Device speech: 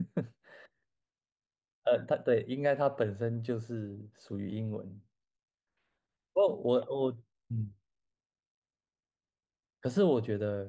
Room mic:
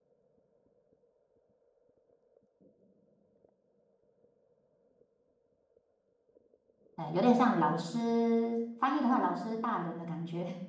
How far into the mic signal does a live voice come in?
7.0 s

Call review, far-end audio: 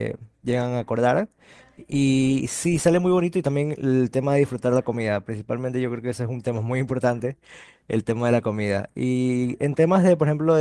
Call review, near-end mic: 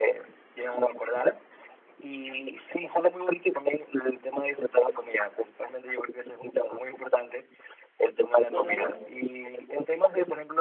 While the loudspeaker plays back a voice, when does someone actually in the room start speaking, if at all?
8.5 s

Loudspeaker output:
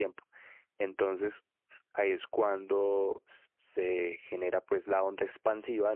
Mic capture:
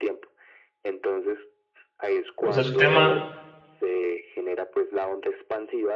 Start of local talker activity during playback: 2.4 s

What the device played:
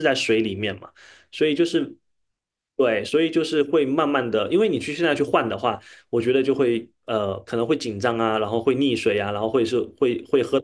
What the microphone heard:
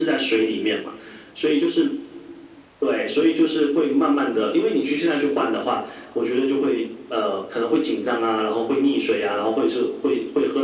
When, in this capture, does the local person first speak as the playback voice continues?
none

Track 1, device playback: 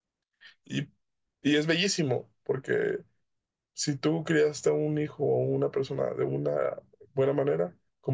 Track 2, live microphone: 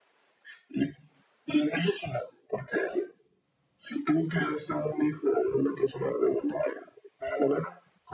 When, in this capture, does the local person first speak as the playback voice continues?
none

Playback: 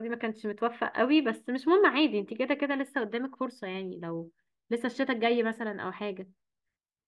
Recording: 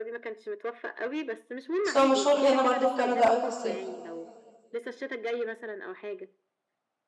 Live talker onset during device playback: 1.8 s

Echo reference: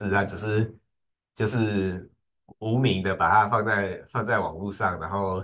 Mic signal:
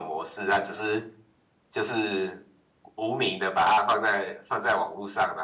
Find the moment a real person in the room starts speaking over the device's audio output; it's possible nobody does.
none

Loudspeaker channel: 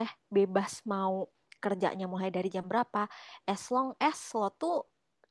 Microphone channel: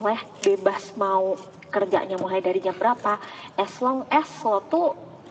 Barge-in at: none

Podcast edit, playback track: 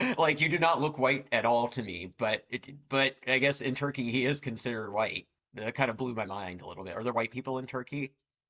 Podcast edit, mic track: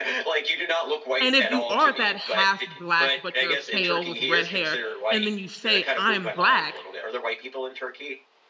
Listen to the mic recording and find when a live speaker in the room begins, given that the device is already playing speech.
1.2 s

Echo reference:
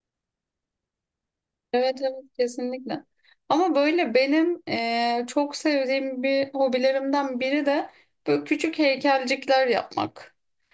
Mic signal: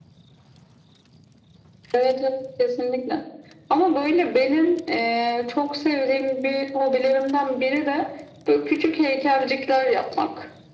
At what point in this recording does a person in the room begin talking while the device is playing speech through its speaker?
none

